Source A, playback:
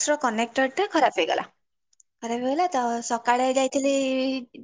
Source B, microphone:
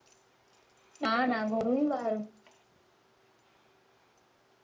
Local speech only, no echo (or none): ନା ନା ଘରୁ ହିଁ ବାହାରୁନି।